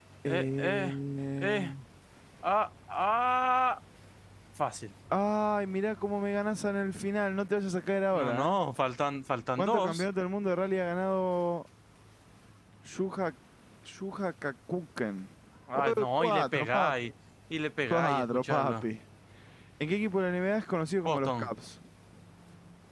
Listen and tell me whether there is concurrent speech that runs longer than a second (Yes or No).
Yes